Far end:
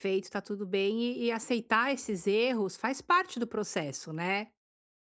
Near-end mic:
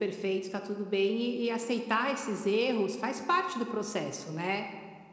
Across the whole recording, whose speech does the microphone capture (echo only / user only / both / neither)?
echo only